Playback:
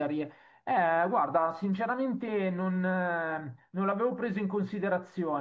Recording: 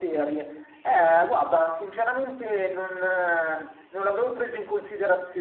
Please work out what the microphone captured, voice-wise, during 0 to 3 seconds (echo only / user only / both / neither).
echo only